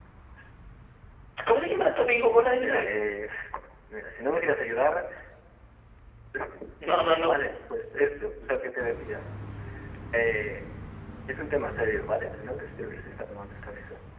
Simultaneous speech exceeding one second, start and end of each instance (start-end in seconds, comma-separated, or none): none